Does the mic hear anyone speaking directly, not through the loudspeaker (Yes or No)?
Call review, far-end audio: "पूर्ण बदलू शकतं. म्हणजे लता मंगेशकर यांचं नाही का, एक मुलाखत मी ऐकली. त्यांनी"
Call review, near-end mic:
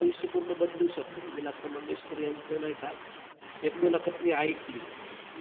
No